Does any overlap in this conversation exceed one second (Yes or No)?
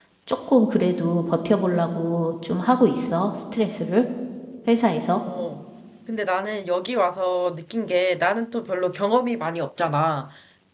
No